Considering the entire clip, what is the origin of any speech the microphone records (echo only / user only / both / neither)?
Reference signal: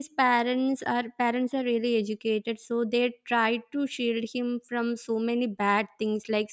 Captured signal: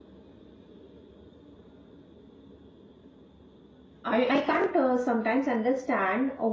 user only